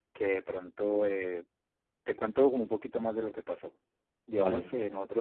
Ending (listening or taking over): listening